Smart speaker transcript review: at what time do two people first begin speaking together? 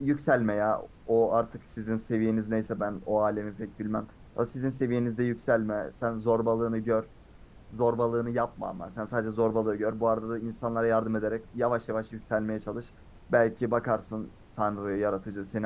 none

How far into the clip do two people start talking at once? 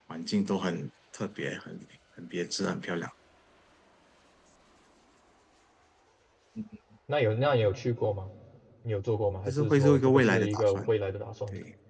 9.5 s

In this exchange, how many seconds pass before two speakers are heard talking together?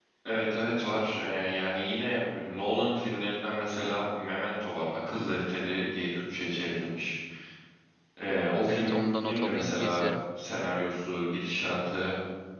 8.7 s

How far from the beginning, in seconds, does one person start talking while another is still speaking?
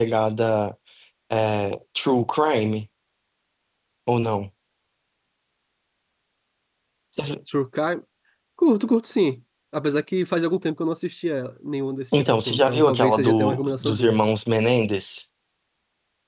12.1 s

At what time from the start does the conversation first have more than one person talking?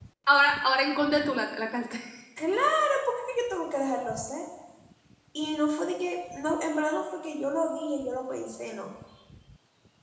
none

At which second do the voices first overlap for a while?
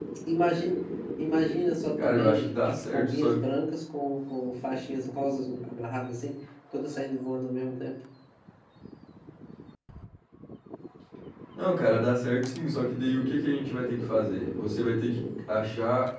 2.0 s

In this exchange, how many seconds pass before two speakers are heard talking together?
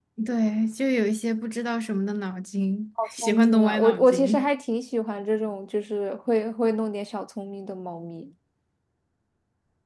3.2 s

